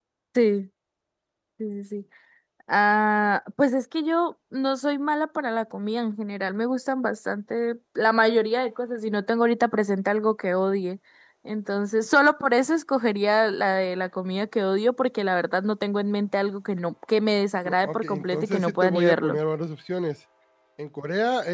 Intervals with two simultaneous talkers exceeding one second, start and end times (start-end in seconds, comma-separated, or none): 17.6-19.4